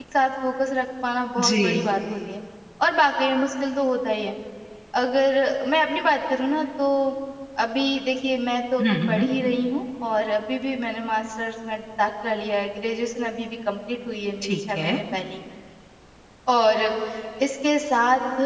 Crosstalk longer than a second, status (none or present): none